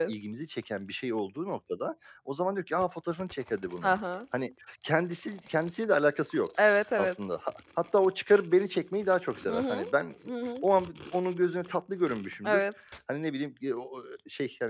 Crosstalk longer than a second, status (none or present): none